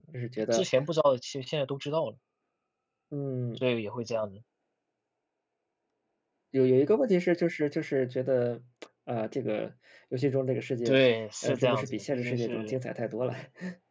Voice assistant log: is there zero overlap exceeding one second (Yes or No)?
No